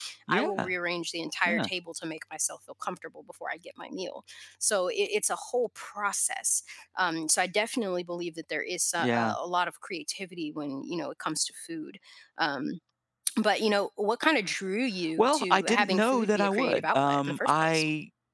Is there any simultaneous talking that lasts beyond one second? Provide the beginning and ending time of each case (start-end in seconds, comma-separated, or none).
15.2-17.8